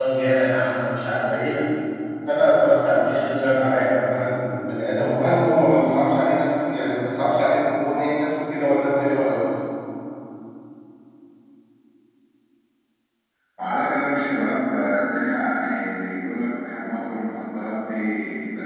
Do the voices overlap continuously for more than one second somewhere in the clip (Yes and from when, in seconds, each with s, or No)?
No